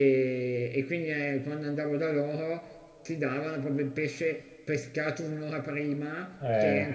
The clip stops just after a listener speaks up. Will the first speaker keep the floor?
Yes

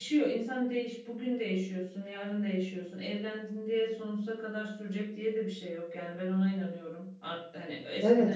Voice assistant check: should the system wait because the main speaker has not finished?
Yes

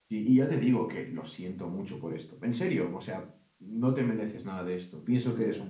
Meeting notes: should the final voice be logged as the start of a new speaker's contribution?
Yes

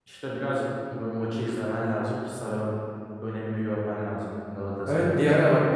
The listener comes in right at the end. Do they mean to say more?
Yes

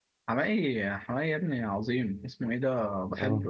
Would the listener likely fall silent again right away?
Yes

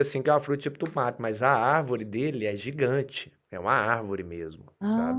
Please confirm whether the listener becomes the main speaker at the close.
Yes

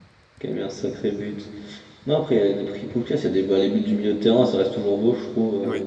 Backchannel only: No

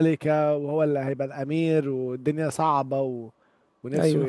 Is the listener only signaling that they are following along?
No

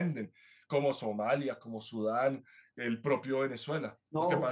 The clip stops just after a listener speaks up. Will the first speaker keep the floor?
No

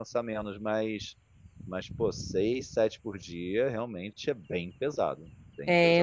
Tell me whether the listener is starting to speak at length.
Yes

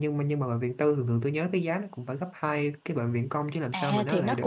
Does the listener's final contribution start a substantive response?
Yes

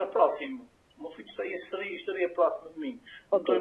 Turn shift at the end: No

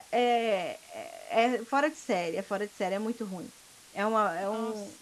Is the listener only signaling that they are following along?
Yes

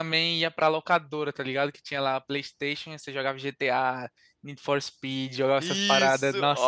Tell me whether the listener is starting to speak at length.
Yes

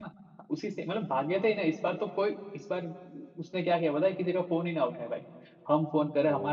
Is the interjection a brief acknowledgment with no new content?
Yes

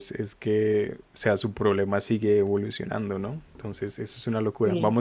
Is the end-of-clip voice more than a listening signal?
No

